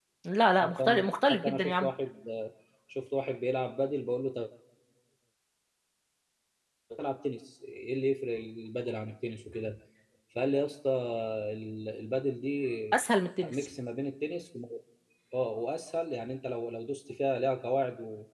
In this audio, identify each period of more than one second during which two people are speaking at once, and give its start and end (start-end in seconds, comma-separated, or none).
0.6-1.9